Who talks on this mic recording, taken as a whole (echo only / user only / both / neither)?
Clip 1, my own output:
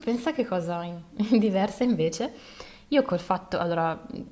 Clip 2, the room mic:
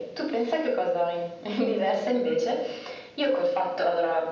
echo only